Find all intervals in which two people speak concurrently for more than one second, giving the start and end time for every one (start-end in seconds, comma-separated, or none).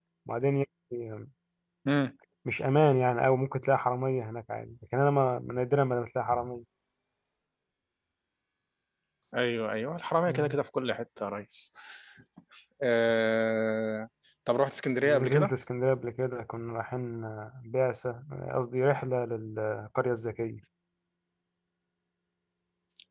none